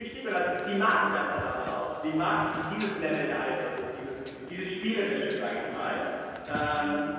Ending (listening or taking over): listening